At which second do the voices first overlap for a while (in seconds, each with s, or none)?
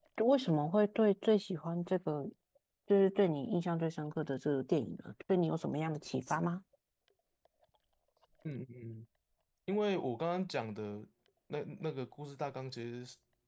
none